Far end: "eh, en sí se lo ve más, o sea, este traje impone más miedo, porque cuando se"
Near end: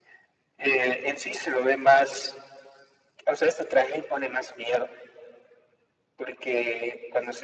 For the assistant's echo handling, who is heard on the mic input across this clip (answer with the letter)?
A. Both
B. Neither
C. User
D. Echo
D